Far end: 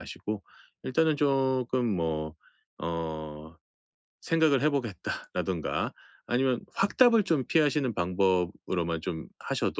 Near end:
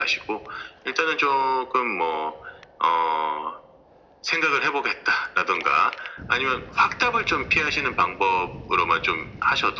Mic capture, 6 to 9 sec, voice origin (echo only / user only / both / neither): echo only